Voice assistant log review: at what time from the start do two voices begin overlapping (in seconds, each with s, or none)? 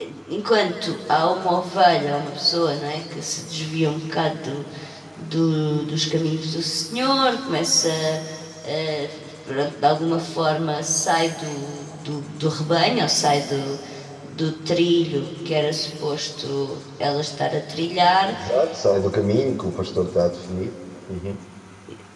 none